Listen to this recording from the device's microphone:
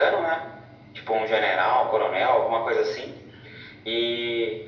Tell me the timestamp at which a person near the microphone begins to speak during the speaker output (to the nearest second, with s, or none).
none